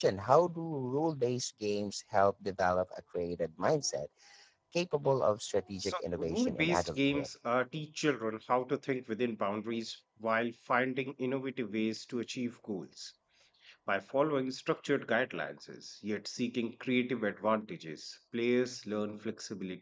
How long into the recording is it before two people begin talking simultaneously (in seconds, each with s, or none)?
5.8 s